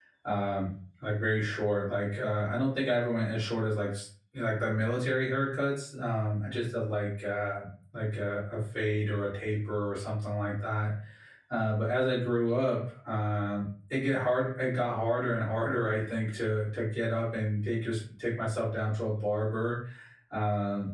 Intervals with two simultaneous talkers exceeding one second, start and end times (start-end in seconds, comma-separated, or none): none